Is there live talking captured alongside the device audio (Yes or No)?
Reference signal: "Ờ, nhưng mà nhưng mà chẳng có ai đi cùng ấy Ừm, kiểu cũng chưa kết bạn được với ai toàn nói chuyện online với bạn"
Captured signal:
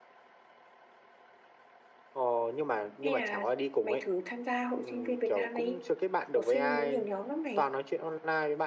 Yes